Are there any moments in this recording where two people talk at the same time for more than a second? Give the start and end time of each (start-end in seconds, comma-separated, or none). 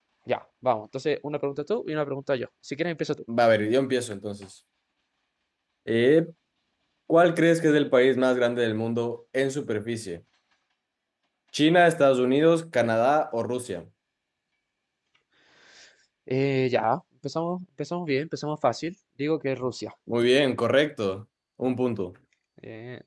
none